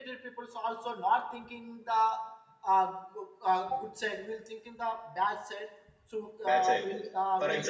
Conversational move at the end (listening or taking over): taking over